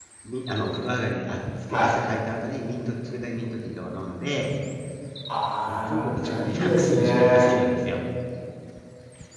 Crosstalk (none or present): present